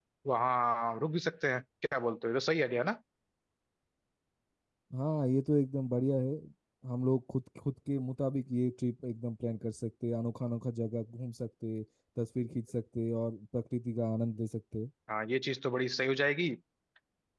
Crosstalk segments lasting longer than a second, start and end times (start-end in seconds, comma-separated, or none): none